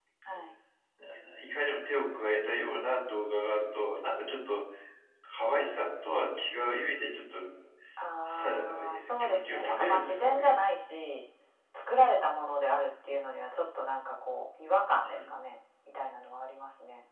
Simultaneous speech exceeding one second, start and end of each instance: 8.3-10.5

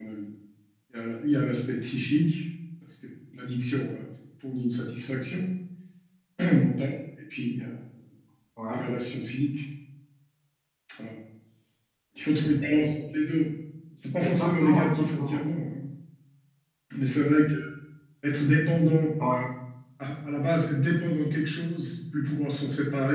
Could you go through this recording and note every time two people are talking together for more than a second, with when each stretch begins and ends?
14.2-15.4

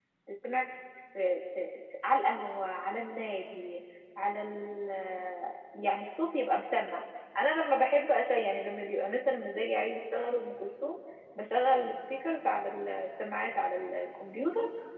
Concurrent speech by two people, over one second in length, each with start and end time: none

